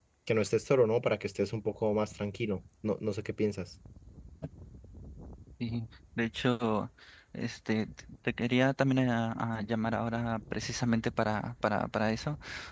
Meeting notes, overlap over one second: none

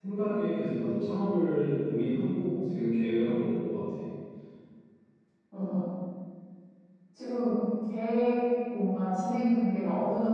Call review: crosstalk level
none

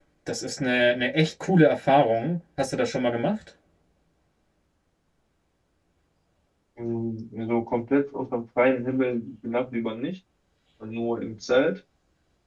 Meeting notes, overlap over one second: none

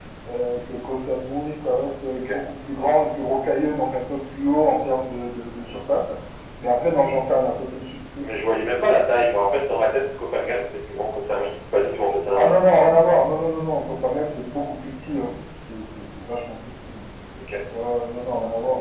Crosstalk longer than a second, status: none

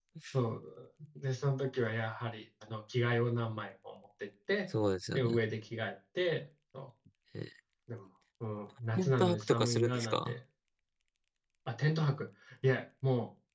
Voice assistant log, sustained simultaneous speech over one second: present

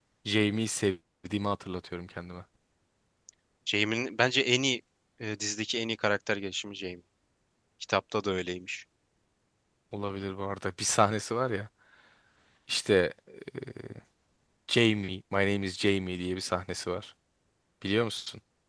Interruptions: none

